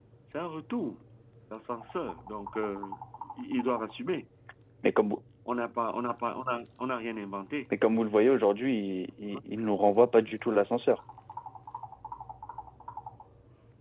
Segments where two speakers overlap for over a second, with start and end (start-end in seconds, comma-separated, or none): none